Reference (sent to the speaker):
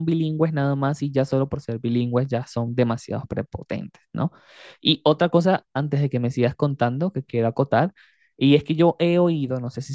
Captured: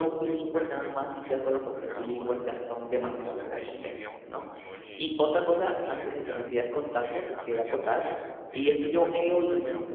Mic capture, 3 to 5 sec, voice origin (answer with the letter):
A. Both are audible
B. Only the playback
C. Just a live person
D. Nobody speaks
A